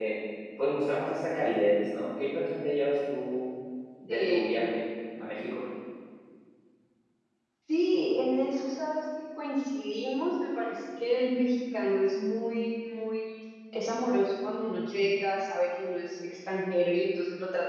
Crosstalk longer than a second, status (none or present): none